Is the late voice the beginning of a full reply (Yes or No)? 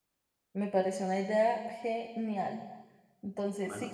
No